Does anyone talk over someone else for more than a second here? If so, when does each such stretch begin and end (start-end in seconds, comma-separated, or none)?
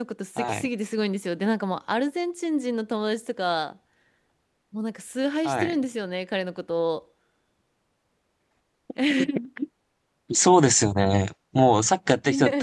none